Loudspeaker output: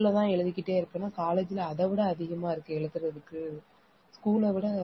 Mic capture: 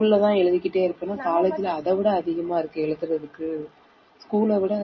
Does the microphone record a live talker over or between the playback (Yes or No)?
Yes